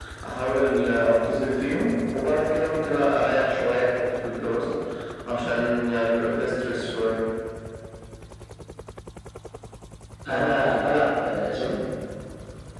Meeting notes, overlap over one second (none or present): none